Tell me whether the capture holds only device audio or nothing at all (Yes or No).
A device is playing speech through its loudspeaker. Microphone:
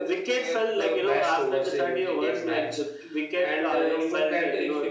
Yes